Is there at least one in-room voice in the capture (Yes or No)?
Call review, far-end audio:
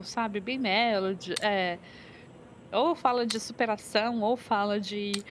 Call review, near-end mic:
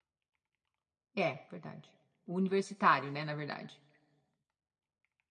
Yes